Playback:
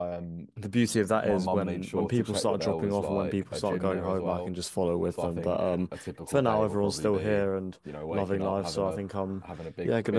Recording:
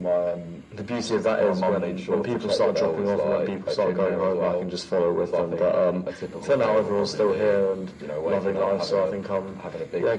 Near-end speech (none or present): none